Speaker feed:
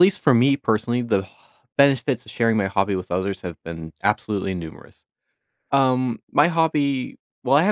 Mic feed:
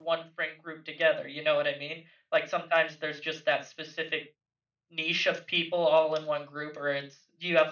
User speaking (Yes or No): Yes